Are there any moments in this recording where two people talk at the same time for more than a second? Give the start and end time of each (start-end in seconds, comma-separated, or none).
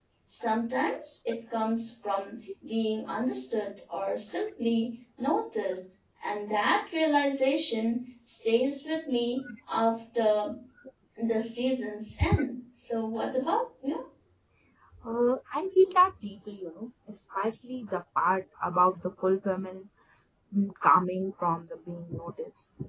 none